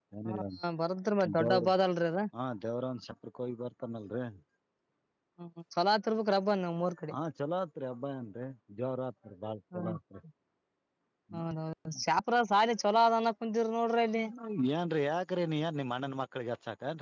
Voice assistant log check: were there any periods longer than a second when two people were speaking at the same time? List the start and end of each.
none

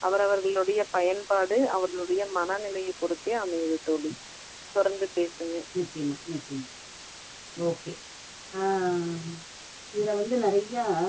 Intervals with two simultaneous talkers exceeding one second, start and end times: none

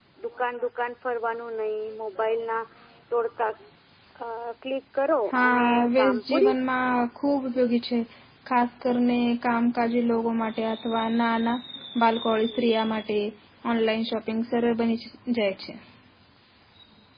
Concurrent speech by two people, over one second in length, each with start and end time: 5.3-6.5

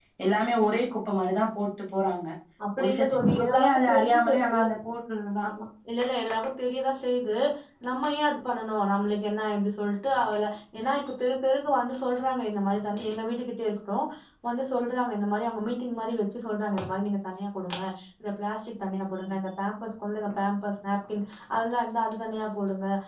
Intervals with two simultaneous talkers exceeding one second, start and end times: 2.8-4.6

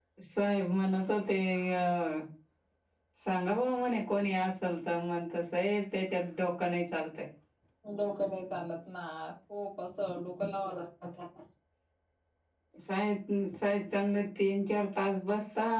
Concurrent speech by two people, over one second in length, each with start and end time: none

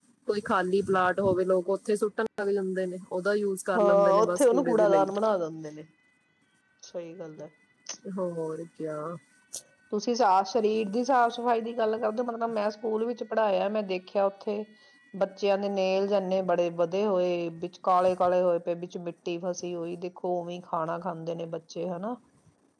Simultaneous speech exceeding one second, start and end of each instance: 3.8-5.1

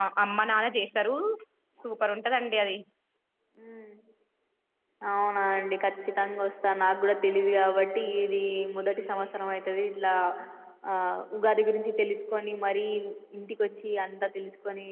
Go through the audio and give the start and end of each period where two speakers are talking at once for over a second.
none

